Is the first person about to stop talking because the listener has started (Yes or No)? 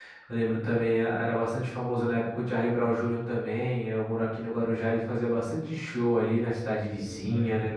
No